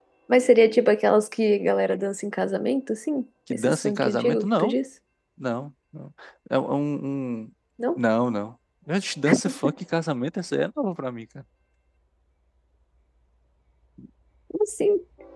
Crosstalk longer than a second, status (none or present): present